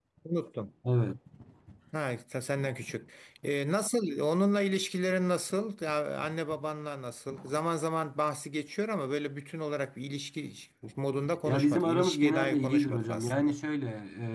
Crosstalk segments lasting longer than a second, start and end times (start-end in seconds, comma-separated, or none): 11.4-13.6